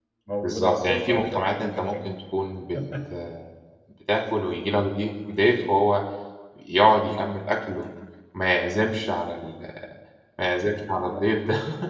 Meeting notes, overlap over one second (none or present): present